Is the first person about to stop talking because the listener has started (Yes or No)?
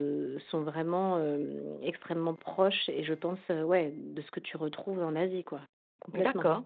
Yes